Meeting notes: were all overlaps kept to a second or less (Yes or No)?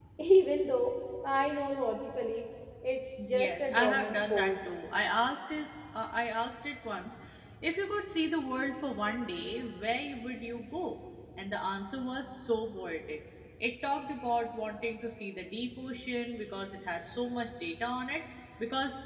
No